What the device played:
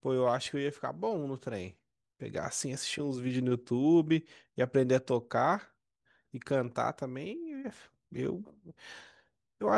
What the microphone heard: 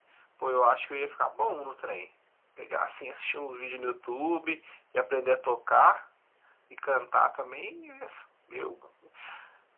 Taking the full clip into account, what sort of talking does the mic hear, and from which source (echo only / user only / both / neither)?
echo only